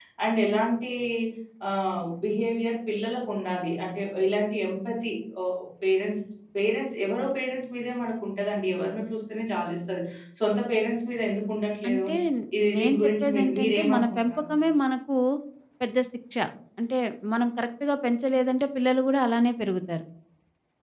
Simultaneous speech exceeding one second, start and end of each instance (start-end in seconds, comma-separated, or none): 12.8-14.4